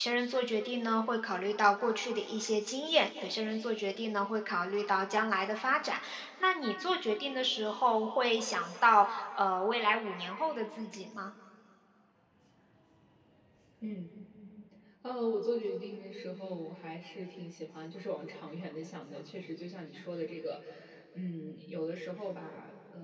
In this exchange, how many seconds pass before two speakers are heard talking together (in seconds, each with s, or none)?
none